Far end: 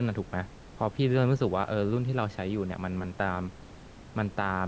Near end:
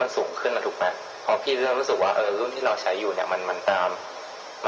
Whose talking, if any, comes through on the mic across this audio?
echo only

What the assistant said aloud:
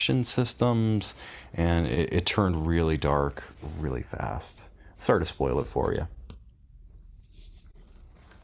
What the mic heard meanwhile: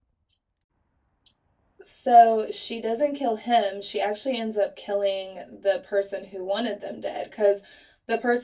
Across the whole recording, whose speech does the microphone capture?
user only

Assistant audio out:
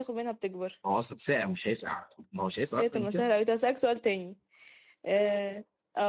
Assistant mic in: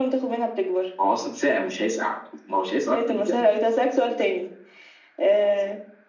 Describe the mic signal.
echo only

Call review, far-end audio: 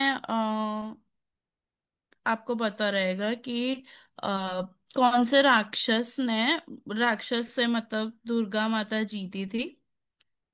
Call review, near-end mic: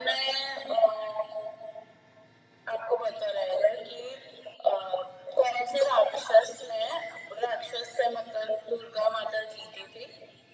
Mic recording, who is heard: echo only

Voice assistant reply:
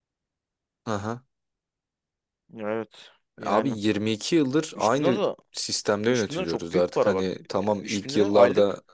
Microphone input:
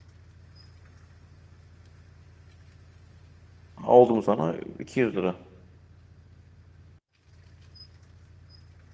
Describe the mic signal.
user only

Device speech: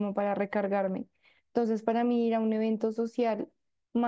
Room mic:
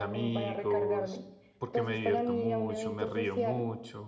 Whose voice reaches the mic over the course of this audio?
both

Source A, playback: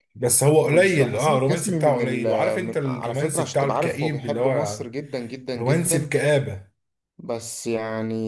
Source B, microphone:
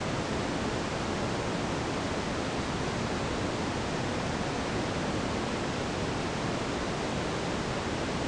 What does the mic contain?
neither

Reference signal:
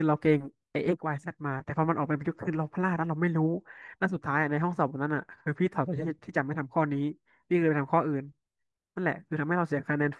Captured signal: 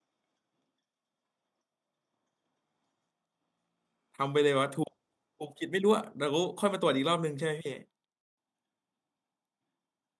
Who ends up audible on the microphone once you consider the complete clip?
user only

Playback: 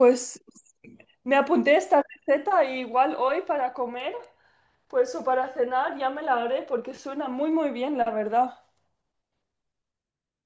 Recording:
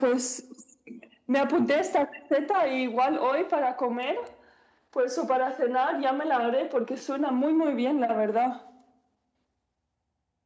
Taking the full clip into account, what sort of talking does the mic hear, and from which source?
echo only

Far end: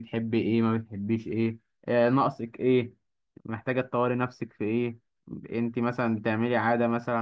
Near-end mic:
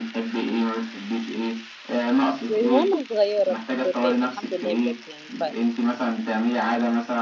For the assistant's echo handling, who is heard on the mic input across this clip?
both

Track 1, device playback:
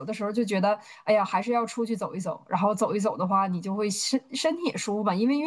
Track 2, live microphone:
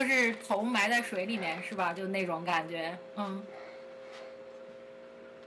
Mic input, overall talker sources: user only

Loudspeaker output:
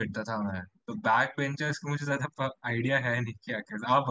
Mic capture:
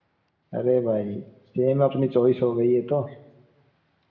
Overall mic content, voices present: user only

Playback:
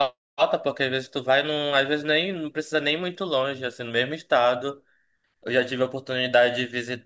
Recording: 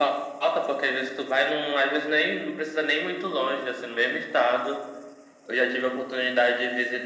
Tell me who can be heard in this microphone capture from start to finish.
echo only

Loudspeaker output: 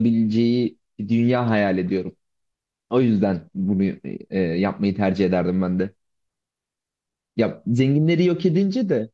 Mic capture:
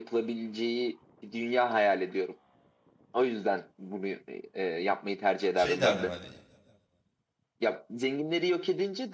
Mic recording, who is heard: both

